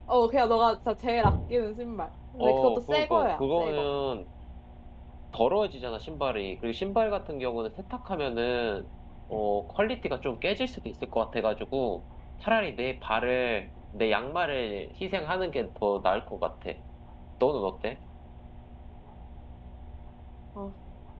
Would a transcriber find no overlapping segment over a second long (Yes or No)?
No